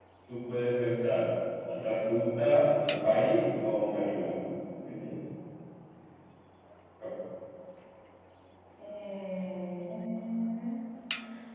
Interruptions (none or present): none